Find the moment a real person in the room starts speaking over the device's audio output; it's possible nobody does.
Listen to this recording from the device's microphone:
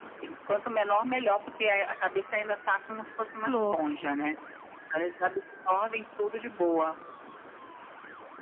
3 s

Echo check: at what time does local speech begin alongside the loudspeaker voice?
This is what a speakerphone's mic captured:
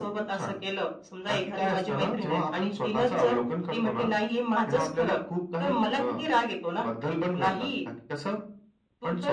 none

